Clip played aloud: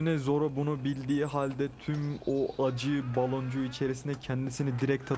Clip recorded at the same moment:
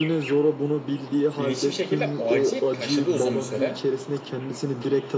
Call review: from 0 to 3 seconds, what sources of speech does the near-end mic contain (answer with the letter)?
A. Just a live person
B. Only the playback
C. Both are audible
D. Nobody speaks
C